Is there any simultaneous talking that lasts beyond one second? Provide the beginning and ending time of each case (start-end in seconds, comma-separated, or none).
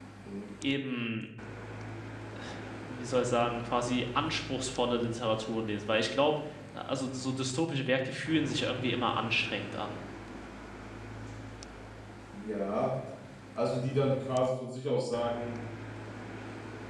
none